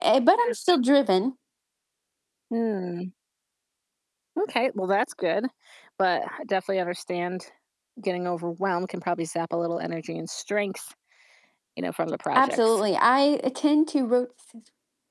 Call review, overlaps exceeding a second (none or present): none